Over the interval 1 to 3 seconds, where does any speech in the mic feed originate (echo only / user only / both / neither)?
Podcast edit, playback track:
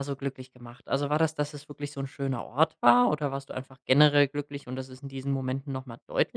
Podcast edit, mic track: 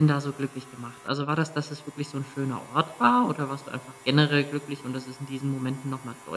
echo only